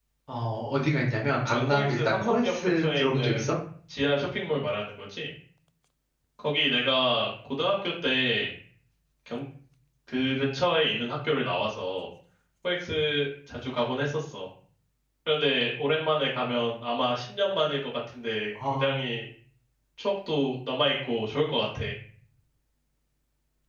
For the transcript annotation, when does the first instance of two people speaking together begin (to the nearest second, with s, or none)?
2 s